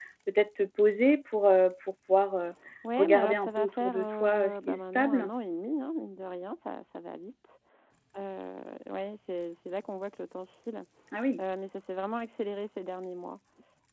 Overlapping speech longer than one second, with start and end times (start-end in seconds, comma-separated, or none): 3.0-5.3